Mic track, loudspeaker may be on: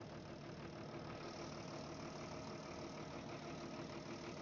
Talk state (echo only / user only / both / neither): neither